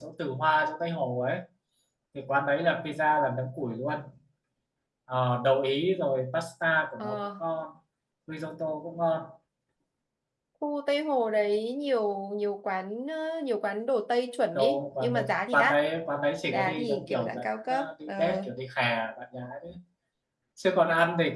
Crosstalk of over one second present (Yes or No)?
Yes